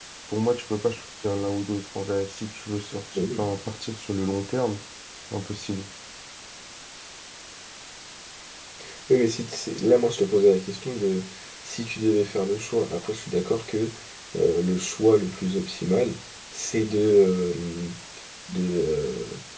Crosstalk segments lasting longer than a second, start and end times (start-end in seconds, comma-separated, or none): none